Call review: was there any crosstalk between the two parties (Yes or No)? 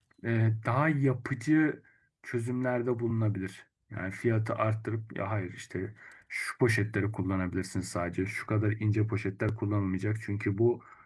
No